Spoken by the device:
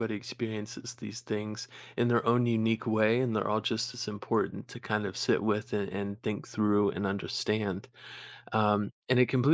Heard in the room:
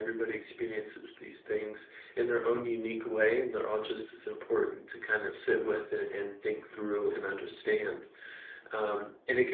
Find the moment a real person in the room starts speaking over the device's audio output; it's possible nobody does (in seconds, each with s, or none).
none